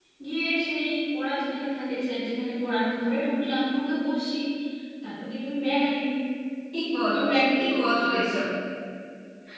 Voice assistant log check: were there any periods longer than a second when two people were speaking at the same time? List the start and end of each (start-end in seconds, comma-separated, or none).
7.1-8.4